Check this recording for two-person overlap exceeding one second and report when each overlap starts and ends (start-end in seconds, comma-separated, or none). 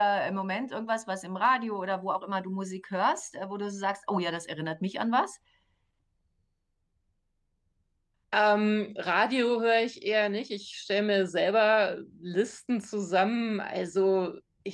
none